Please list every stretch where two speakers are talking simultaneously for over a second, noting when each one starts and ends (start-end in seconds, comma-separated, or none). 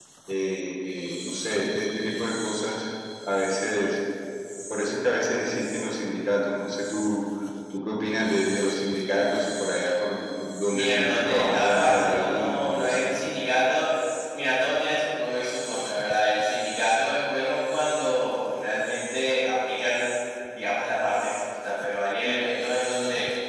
10.7-13.1